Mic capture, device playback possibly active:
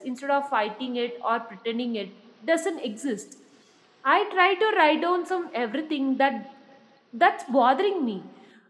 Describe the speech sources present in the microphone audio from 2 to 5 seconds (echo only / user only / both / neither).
user only